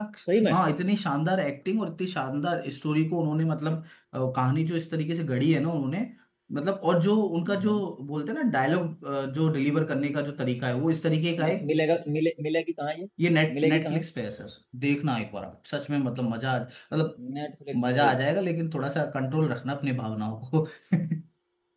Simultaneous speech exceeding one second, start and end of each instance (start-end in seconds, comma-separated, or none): none